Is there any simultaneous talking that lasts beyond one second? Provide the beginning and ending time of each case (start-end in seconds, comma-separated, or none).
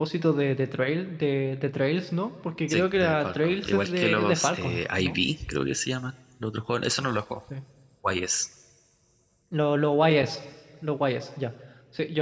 2.7-5.2